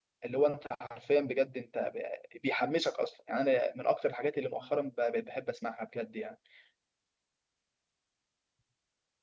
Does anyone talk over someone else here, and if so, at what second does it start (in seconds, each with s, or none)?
none